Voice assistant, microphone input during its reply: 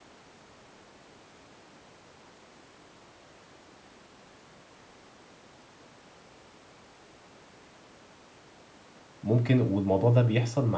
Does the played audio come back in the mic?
No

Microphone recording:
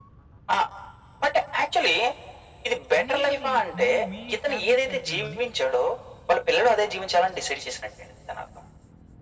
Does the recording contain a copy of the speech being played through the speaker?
Yes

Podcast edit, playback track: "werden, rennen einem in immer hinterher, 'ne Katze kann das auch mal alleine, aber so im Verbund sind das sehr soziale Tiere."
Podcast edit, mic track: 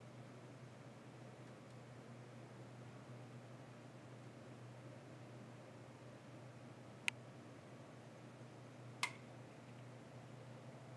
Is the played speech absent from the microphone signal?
Yes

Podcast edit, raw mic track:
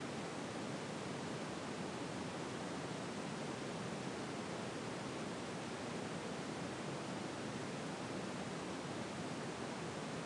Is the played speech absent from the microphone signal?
Yes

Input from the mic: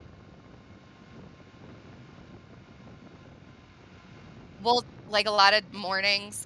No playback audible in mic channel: Yes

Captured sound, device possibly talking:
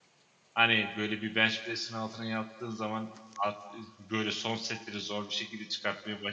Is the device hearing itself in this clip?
No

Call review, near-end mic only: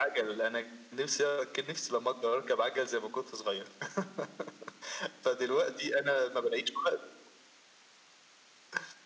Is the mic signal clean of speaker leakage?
No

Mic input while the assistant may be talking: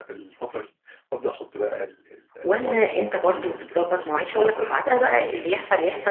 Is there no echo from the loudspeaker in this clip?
No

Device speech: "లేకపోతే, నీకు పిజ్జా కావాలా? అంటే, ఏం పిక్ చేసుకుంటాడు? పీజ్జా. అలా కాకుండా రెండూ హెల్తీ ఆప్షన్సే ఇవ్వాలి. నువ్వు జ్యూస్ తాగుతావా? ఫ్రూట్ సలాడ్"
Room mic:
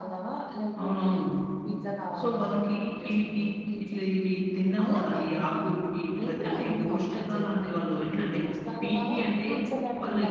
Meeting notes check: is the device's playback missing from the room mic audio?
No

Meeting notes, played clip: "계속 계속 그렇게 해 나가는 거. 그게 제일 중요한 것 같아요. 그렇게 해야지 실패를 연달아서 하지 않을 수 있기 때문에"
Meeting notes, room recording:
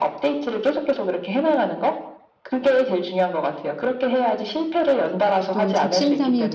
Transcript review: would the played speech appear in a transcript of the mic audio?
Yes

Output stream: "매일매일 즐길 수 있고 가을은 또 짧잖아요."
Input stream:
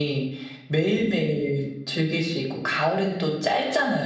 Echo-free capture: No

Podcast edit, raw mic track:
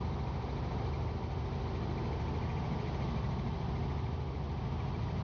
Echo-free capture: Yes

